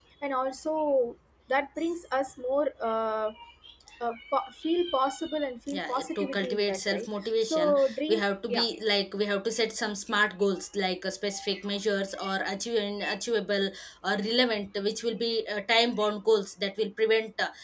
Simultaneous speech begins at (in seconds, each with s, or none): 5.7 s